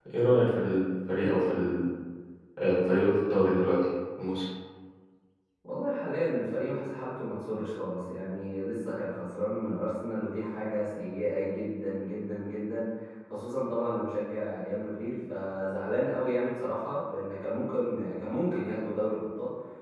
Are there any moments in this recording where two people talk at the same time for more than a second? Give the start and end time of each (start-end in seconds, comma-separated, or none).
none